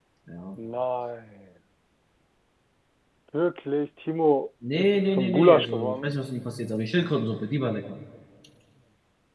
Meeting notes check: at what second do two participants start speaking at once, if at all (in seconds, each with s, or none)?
4.6 s